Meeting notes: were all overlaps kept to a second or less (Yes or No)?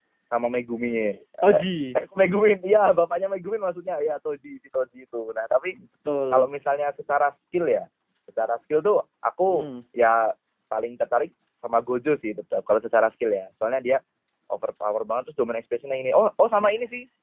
Yes